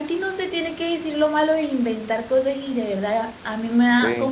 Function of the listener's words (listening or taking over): listening